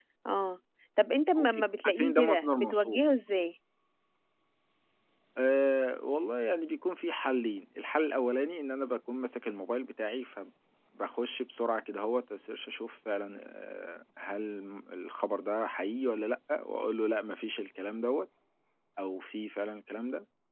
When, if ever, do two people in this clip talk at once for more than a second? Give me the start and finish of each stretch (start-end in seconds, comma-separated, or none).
1.4-3.0